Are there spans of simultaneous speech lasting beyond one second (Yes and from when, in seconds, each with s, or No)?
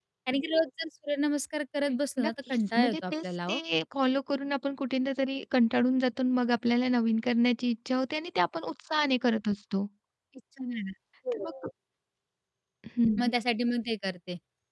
Yes, from 1.9 s